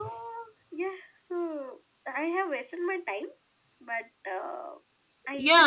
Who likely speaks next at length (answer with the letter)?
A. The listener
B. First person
A